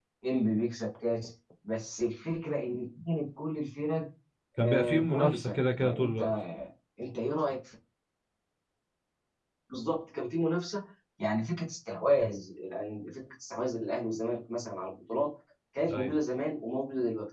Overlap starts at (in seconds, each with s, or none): 4.6 s